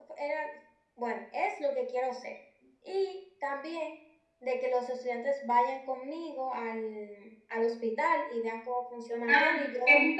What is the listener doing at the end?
taking over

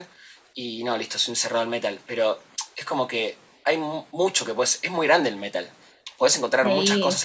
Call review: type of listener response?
listening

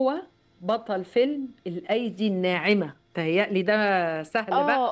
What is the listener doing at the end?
taking over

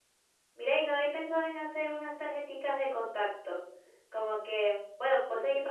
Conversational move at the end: listening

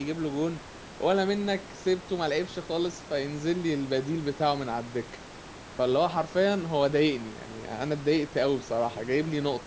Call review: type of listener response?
taking over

